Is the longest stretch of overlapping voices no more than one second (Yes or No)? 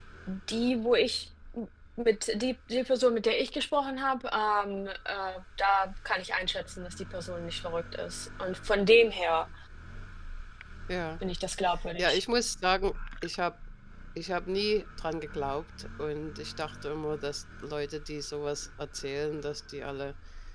Yes